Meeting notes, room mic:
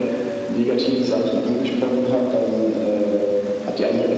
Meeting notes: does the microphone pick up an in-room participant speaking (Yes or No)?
No